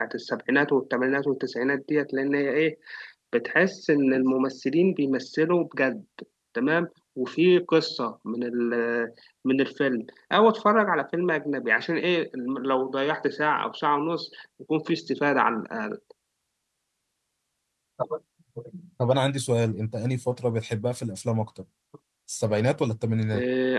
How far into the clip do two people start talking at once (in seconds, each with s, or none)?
none